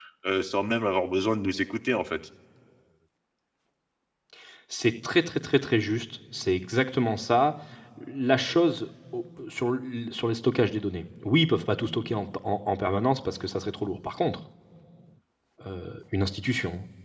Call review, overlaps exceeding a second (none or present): none